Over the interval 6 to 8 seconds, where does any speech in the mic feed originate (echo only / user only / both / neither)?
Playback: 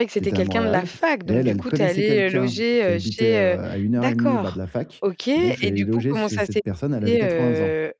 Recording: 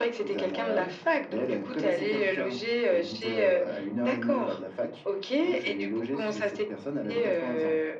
echo only